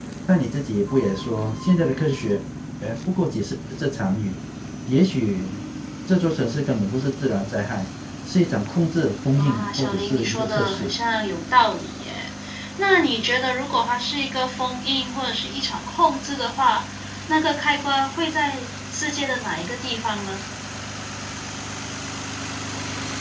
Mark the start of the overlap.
9.3 s

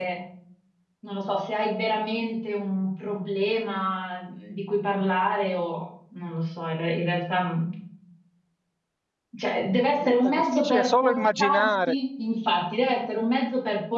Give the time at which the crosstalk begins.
10.2 s

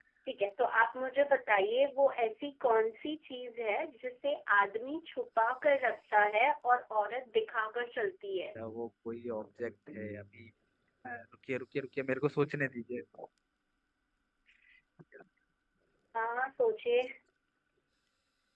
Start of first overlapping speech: none

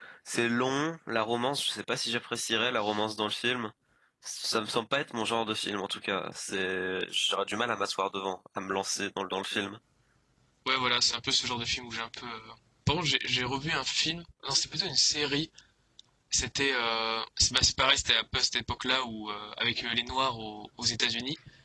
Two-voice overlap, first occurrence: none

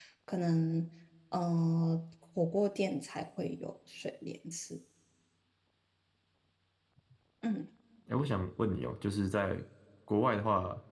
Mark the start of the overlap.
none

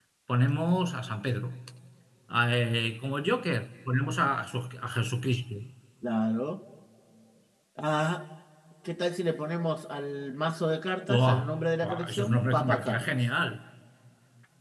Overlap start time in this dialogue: 11.1 s

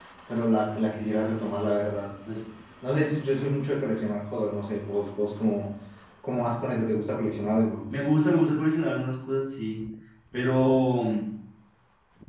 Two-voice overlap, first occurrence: none

